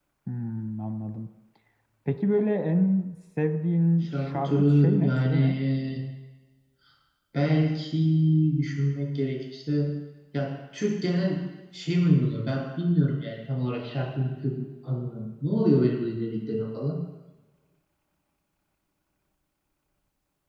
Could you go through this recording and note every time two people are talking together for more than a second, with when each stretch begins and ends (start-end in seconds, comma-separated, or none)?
4.0-5.5